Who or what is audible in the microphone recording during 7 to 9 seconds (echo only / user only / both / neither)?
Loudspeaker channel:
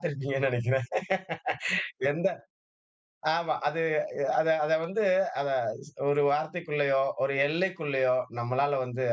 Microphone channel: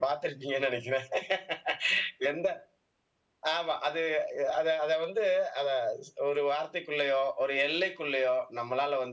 echo only